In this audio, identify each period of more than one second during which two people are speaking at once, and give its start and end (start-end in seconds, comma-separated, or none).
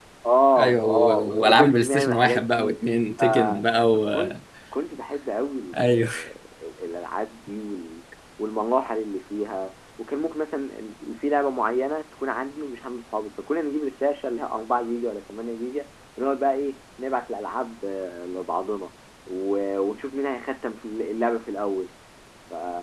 0.6-2.8